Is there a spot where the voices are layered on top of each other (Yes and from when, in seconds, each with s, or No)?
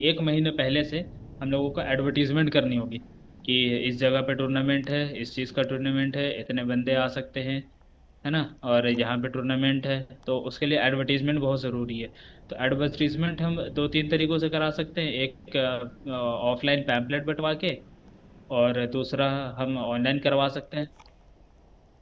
No